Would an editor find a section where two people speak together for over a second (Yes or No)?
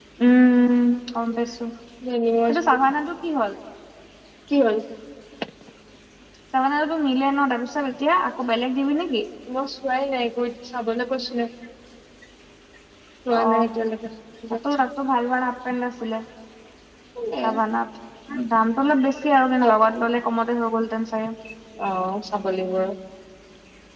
No